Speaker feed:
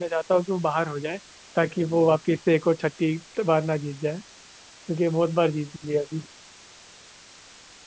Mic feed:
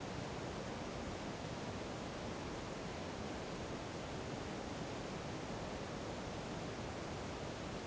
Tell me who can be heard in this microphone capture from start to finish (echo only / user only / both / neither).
neither